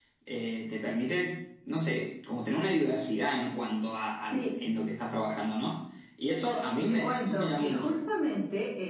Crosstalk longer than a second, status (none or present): present